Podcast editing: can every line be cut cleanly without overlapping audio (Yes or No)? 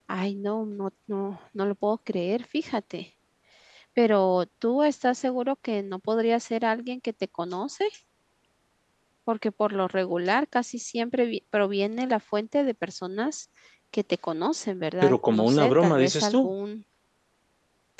No